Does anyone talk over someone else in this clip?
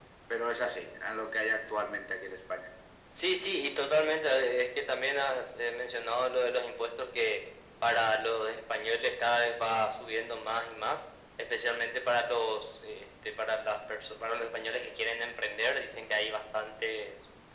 No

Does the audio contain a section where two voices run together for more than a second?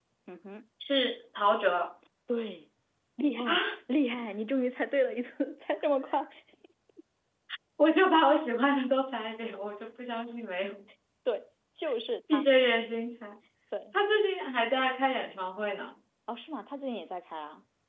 No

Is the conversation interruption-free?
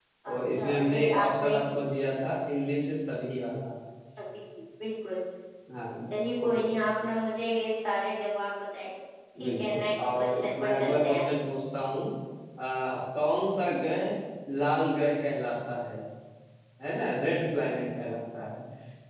No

